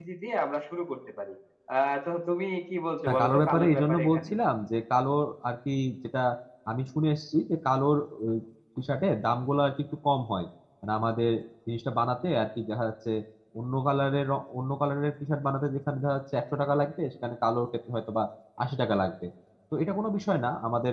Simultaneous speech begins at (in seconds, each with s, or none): 3.1 s